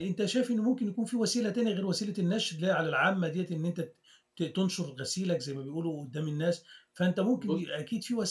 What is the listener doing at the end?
listening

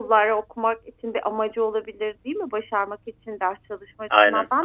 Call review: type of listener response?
listening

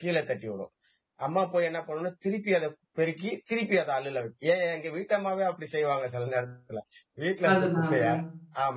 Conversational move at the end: listening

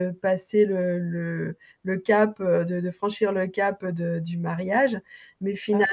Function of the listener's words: listening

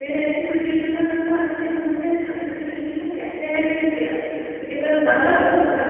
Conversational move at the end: listening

